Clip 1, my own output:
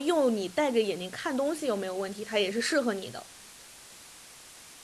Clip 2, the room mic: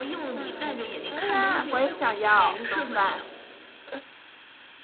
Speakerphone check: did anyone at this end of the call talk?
Yes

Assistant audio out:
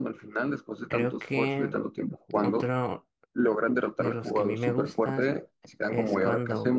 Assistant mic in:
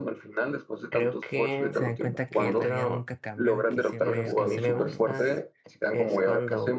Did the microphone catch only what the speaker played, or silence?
No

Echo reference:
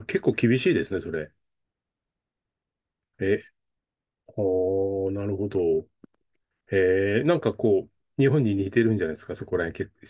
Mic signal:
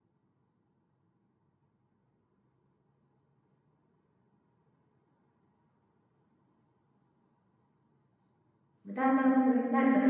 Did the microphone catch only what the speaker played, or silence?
No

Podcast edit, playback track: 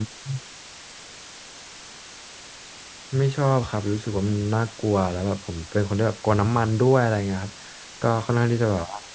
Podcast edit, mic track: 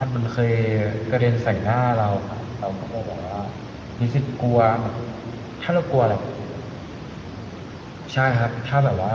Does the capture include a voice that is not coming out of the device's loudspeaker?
Yes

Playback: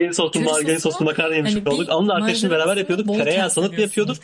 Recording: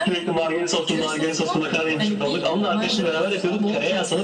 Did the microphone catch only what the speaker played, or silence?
No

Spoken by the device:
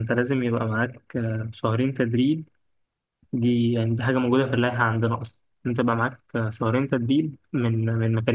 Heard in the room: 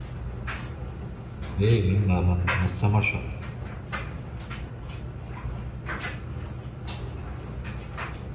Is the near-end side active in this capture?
Yes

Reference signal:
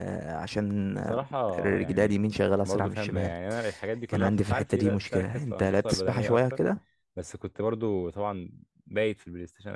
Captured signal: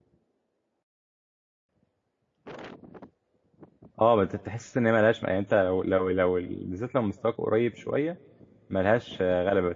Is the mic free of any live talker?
No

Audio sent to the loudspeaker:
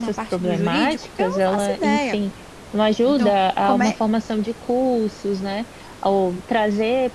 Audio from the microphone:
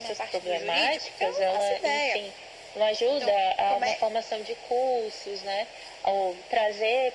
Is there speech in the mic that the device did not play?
No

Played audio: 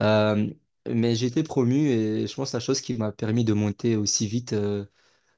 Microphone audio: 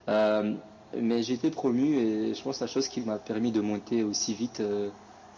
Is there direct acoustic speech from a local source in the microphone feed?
No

